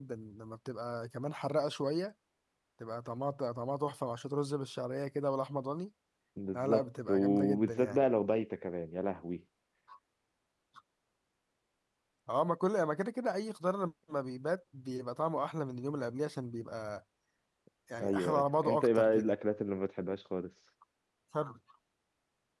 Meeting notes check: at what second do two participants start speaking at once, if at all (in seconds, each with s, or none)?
6.6 s